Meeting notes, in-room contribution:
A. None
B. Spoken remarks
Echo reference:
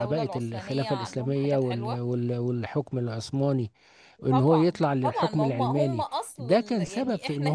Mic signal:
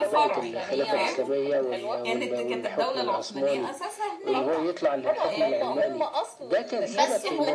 B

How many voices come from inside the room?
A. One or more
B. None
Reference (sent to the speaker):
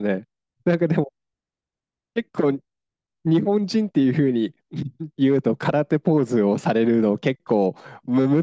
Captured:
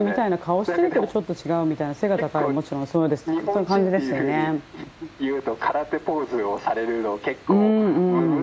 A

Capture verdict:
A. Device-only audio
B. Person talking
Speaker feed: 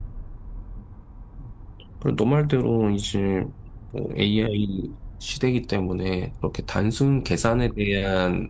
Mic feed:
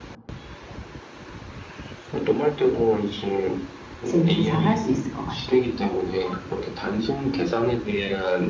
B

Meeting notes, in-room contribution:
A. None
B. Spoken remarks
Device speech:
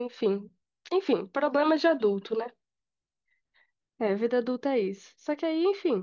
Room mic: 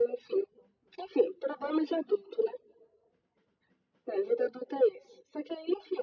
A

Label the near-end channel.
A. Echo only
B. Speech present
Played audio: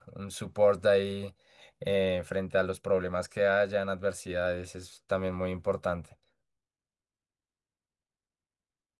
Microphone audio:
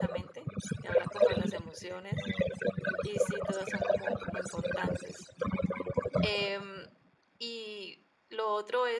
B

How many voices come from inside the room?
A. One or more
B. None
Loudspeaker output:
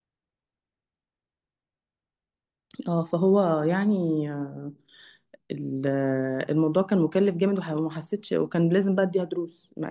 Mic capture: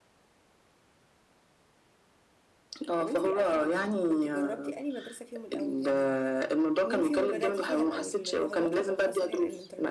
A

